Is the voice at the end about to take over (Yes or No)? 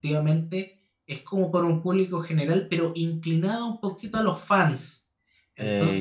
Yes